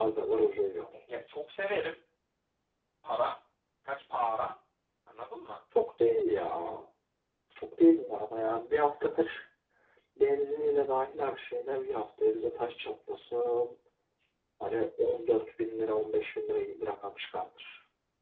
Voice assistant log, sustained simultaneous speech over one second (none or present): none